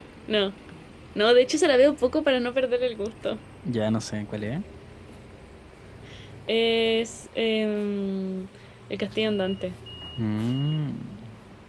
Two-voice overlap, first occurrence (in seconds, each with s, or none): none